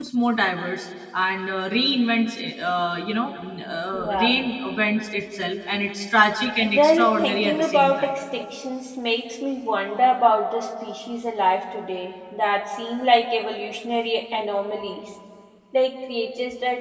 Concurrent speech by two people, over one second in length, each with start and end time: 6.7-8.1

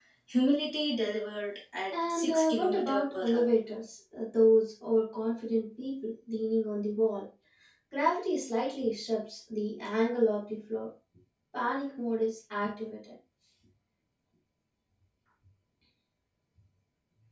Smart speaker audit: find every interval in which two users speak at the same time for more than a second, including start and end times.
2.1-3.5

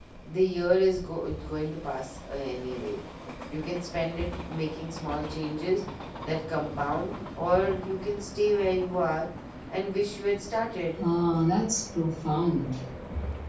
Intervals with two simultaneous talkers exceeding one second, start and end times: none

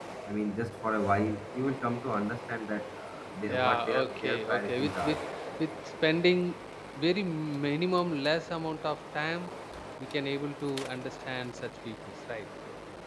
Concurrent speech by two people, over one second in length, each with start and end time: 3.5-5.2

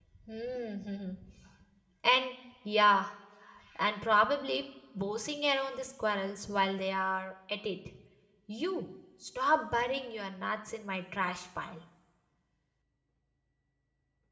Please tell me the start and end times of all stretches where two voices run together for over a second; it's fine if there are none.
none

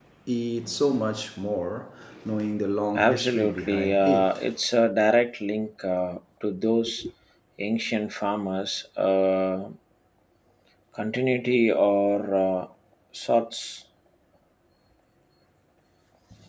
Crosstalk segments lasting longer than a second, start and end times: 3.0-4.4

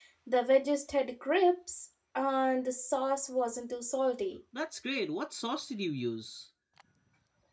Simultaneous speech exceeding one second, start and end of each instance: none

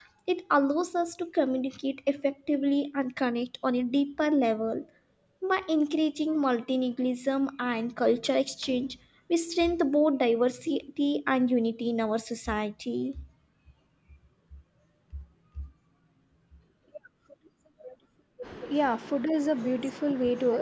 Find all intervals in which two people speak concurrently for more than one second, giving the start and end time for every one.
none

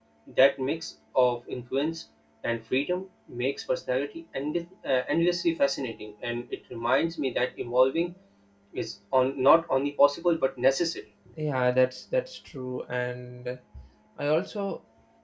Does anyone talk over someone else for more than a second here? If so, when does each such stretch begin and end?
none

